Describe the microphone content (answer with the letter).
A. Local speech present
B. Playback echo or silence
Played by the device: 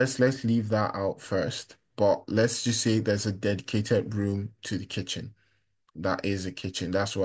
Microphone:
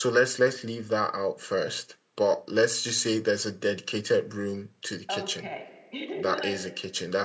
A